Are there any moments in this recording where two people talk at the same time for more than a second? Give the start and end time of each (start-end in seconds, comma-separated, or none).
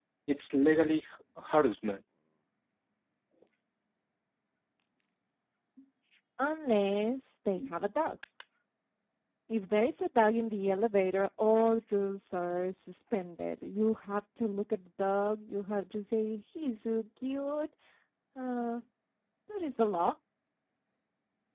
none